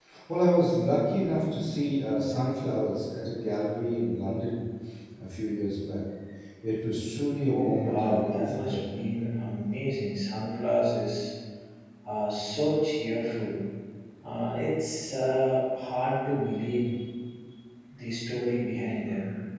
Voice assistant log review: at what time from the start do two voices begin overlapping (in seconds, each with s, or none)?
7.5 s